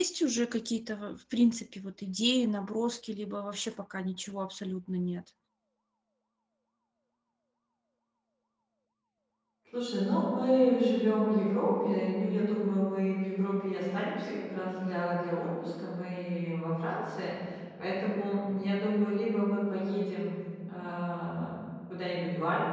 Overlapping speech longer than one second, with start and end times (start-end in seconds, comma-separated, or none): none